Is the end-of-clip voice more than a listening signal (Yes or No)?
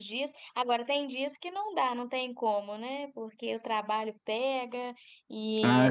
No